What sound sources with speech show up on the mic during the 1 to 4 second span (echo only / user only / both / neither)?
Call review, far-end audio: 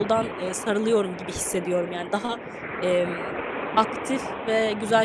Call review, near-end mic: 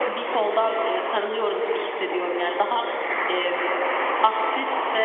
echo only